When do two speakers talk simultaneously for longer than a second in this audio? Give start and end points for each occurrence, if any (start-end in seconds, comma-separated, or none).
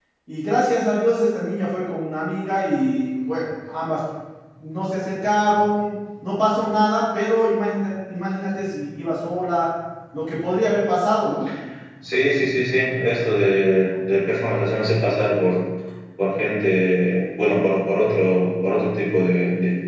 none